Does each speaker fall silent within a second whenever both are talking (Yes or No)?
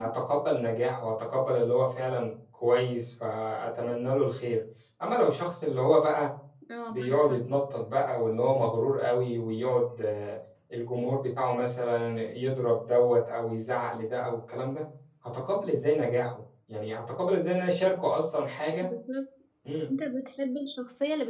Yes